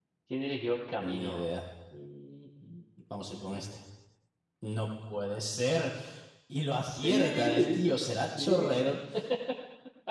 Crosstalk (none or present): present